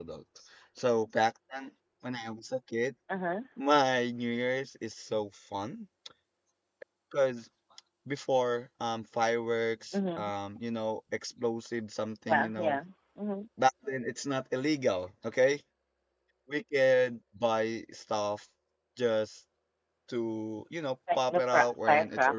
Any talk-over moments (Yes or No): Yes